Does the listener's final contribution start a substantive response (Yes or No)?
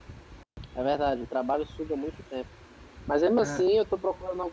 No